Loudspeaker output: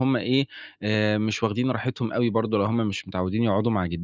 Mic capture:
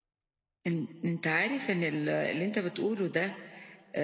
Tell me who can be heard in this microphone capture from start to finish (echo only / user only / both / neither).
user only